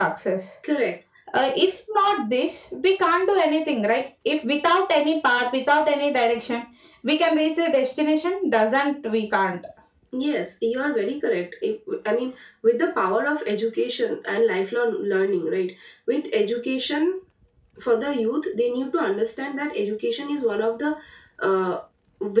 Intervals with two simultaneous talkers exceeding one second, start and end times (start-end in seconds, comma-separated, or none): none